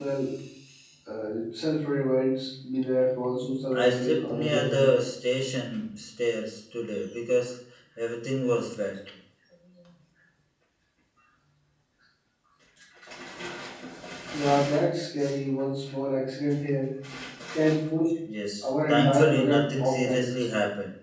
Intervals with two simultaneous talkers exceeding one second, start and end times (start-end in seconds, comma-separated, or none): 3.7-5.0, 18.6-20.4